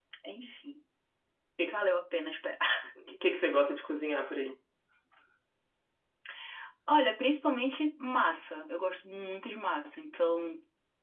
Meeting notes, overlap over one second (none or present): none